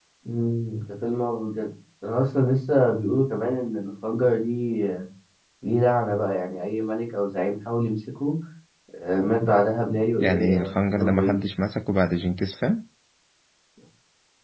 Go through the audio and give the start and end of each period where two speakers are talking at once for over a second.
10.2-11.4

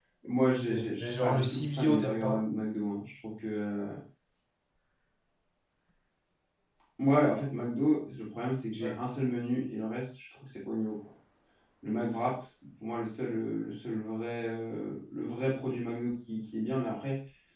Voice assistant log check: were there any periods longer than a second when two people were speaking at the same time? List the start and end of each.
0.7-2.4

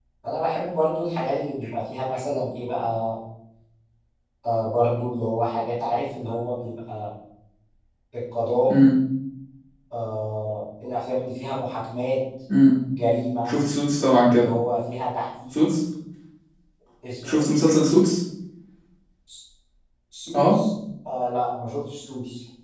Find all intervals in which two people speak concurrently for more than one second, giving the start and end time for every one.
none

